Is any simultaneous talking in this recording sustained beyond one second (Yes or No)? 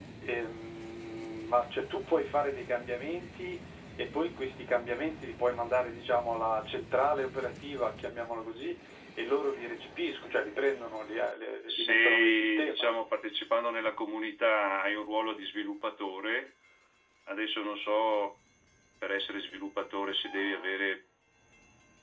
Yes